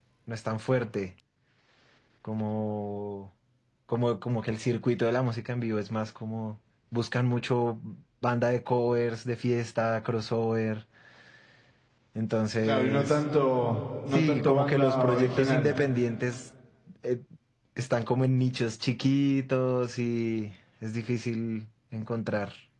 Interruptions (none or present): present